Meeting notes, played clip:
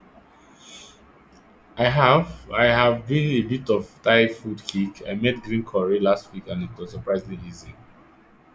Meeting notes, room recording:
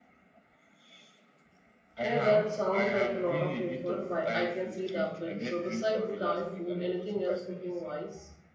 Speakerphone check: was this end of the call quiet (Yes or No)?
No